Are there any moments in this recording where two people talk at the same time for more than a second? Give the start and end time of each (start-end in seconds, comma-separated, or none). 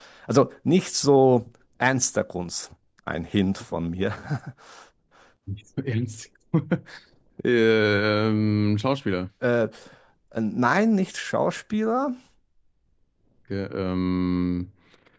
none